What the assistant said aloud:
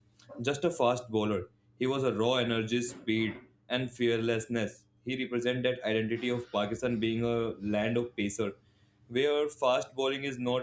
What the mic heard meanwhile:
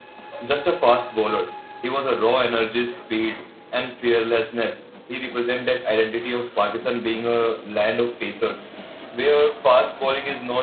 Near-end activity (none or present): none